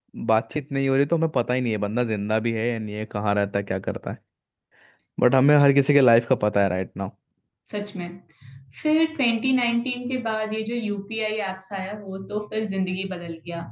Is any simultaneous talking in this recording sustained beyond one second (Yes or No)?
No